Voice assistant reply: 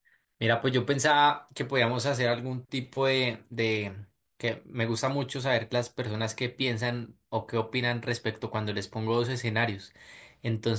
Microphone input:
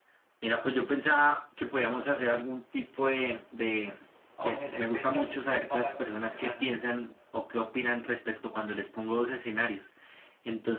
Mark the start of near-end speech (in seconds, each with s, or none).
4.4 s